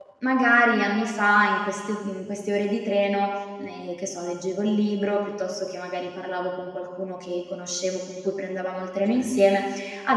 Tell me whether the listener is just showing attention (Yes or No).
Yes